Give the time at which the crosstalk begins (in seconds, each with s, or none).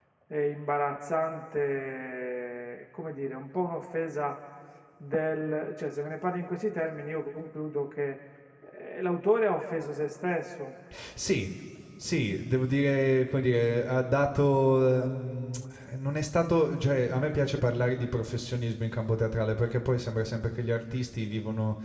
none